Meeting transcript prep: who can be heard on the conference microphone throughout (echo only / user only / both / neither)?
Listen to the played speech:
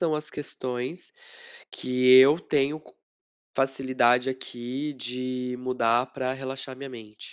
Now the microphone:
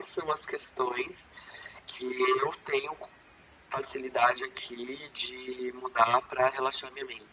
echo only